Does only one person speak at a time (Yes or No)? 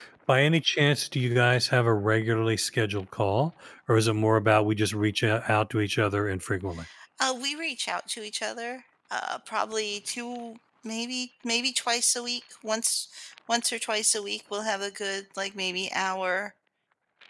Yes